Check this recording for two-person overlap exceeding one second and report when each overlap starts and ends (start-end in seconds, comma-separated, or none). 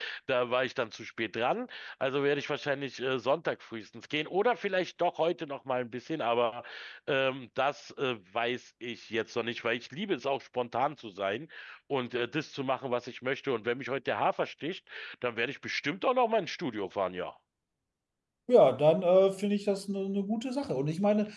none